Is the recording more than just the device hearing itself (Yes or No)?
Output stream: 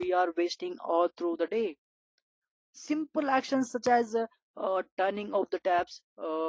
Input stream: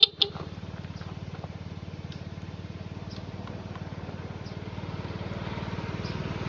No